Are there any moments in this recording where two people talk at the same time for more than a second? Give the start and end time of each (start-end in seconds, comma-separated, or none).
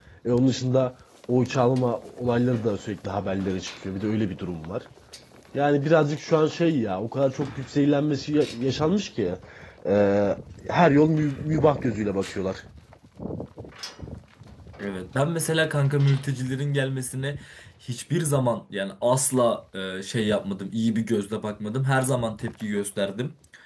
none